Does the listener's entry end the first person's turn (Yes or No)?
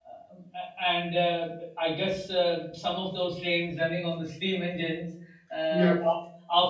No